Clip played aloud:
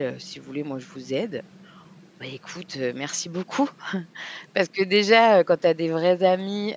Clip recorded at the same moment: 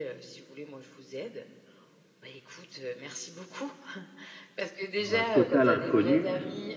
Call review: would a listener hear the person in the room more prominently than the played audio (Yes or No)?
Yes